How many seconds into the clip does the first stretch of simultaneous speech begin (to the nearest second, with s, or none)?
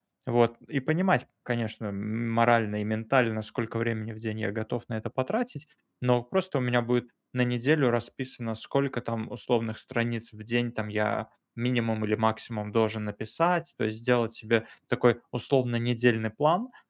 none